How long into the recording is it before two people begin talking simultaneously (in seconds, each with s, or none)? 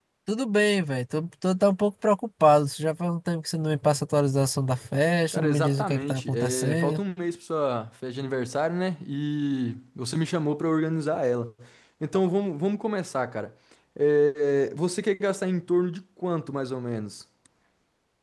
5.3 s